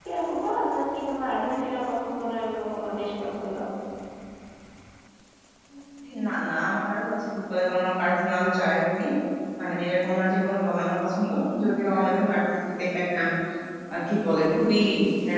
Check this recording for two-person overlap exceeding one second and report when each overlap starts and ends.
none

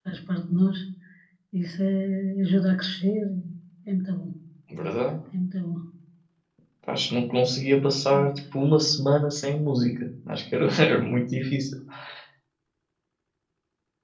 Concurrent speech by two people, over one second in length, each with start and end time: none

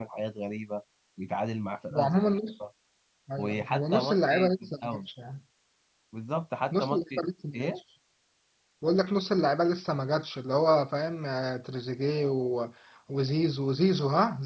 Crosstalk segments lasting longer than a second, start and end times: 3.4-5.0

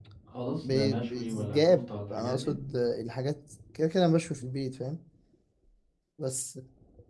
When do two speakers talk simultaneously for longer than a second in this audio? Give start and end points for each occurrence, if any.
0.6-2.6

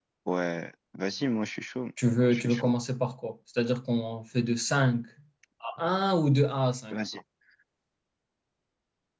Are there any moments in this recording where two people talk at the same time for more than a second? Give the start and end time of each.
none

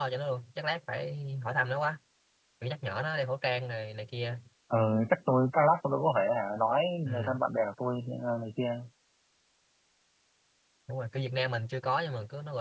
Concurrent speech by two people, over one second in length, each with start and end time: none

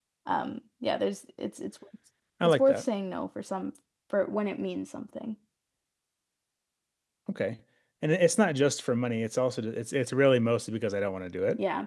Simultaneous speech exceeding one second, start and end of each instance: none

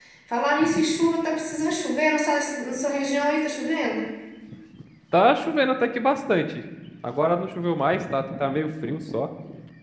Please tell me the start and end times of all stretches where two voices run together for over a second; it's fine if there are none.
none

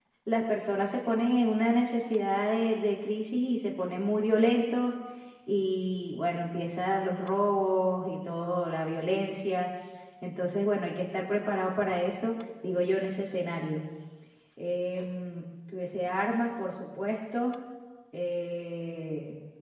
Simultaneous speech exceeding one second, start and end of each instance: none

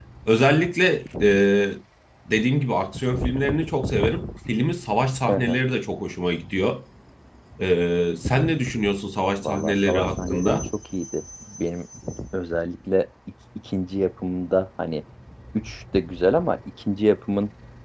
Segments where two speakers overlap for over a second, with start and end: 9.4-10.6

